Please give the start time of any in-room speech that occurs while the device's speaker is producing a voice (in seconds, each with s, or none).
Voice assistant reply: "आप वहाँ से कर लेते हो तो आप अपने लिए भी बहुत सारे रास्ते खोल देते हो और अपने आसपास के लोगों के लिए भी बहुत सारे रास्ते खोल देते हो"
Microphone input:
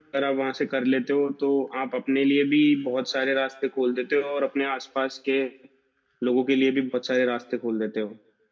none